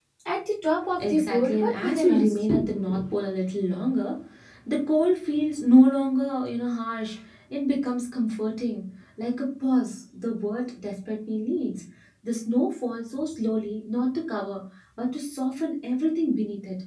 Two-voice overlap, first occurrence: 1.0 s

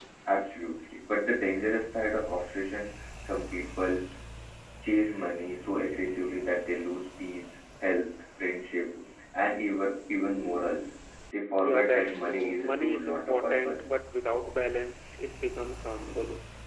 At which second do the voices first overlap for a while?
11.6 s

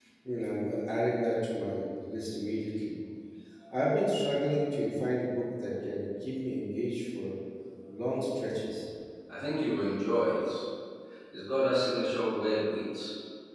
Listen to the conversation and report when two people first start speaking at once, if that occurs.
none

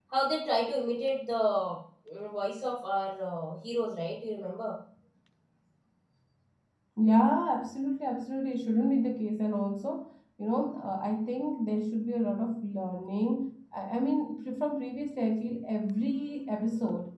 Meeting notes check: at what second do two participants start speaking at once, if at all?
none

